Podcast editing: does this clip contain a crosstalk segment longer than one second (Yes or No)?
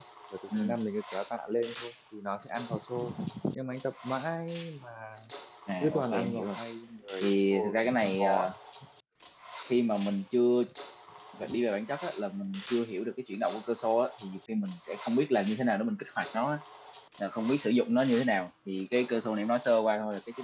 Yes